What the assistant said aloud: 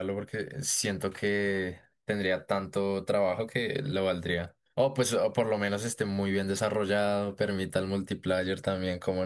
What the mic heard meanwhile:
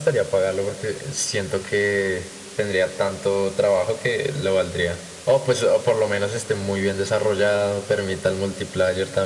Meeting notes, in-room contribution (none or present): none